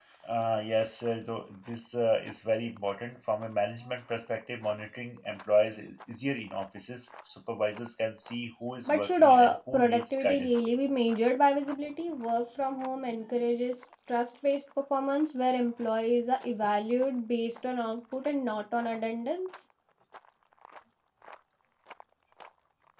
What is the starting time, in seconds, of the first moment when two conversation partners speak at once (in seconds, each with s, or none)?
8.9 s